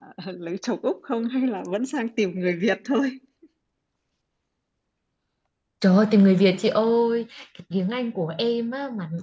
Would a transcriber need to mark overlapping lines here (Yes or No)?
No